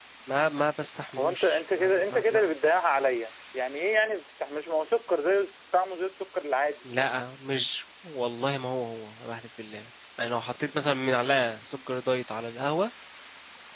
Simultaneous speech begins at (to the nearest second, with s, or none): 1 s